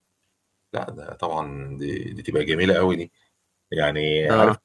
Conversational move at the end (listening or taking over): taking over